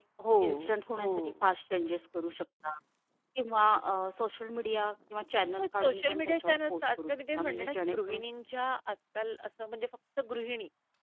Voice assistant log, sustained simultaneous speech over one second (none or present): present